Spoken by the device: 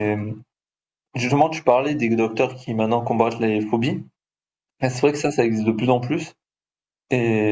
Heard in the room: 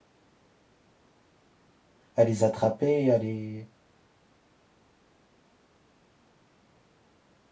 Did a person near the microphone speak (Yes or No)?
Yes